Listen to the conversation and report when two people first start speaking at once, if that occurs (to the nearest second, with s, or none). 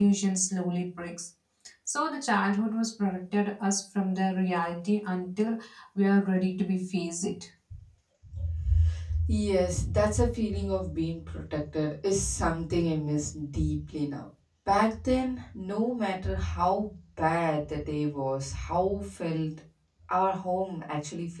none